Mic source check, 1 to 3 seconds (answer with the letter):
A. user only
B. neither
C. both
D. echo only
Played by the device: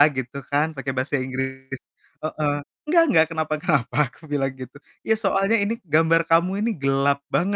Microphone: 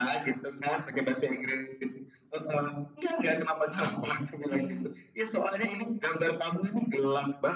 D